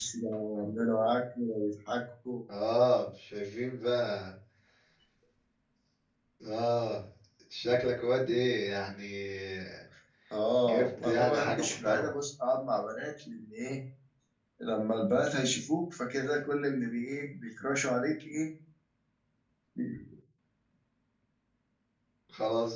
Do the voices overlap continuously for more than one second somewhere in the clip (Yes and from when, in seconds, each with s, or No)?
Yes, from 10.7 s